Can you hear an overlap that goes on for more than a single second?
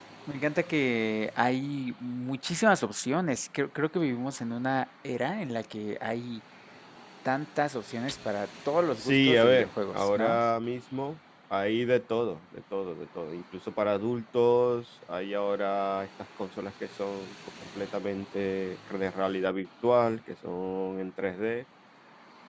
Yes, from 9.0 s

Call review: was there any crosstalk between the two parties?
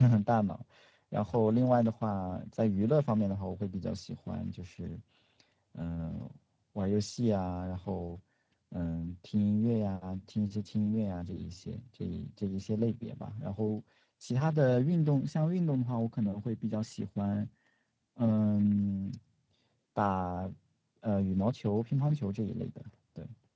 No

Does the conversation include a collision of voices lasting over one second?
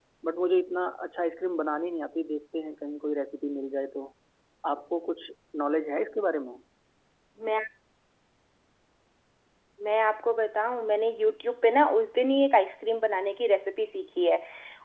No

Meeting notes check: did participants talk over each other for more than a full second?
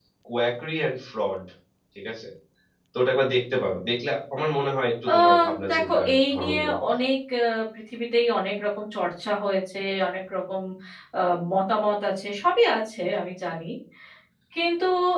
Yes, from 5.1 s

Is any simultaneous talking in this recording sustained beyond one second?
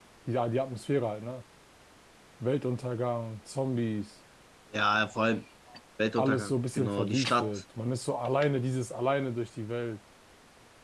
Yes, from 6.2 s

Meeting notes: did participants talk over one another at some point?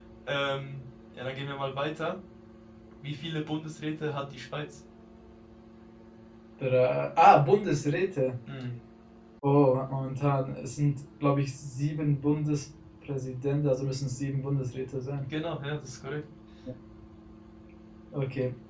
No

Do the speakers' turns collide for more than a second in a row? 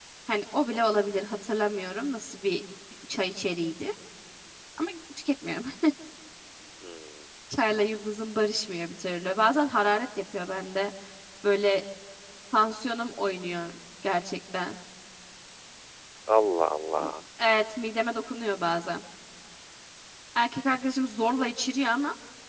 No

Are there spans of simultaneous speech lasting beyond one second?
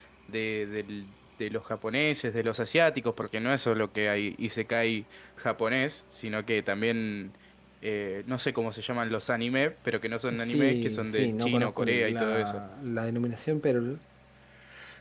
Yes, from 10.3 s

